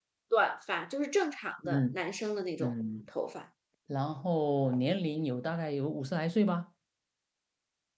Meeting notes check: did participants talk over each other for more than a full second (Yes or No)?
No